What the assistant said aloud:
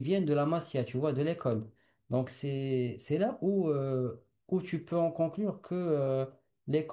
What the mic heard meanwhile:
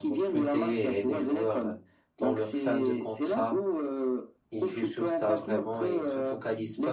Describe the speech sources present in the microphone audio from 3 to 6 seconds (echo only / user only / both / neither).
both